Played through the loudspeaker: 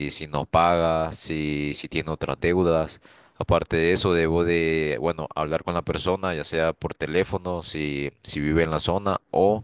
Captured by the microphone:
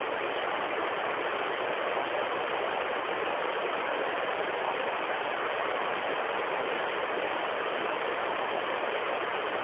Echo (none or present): none